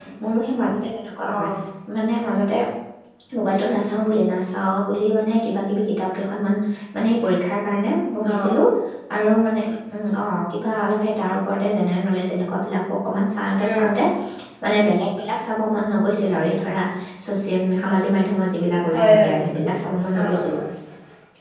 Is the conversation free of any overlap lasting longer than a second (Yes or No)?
Yes